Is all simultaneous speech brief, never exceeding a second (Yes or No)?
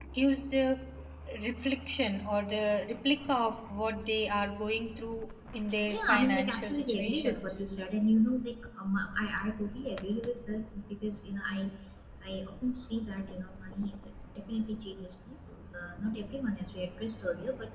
No